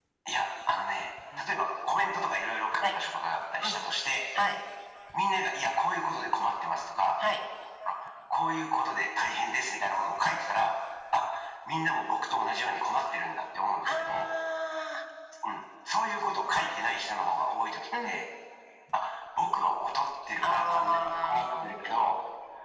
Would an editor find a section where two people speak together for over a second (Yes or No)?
Yes